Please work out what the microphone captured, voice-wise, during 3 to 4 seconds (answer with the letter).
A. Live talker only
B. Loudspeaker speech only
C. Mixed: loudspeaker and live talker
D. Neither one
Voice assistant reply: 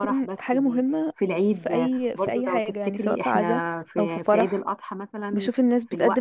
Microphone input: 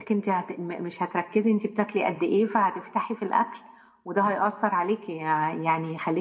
A